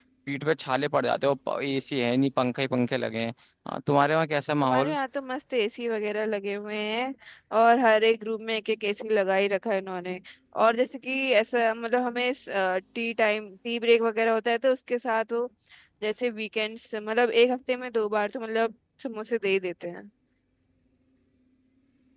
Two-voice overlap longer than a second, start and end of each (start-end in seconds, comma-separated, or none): none